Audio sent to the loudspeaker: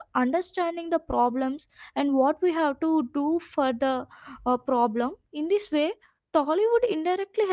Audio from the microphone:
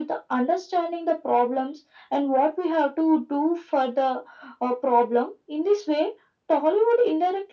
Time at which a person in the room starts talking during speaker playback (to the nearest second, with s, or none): none